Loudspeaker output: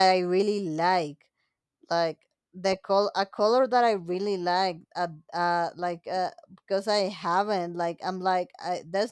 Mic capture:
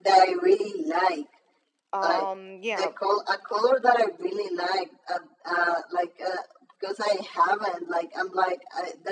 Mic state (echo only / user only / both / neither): both